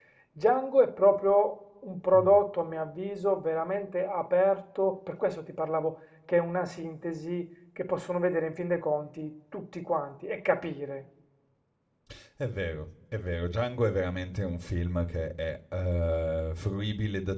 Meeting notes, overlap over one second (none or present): none